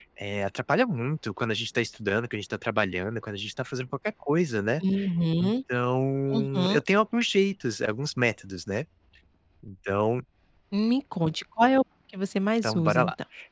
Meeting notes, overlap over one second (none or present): none